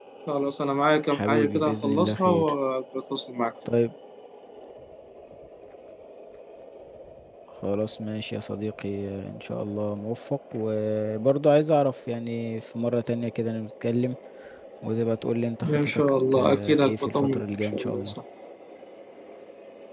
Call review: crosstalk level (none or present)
present